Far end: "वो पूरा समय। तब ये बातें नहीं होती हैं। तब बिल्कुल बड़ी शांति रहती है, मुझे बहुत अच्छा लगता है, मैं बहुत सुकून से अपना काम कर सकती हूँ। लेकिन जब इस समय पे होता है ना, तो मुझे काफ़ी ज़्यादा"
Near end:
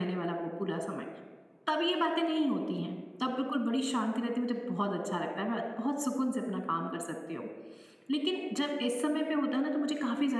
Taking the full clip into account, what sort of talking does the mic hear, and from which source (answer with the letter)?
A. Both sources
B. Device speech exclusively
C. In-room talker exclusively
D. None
B